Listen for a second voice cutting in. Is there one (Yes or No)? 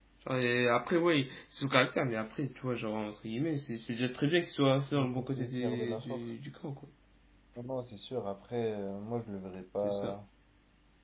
Yes